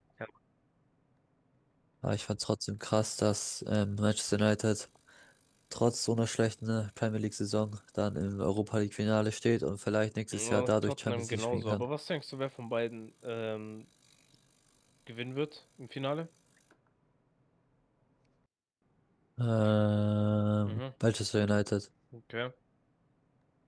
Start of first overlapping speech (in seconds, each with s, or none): 10.3 s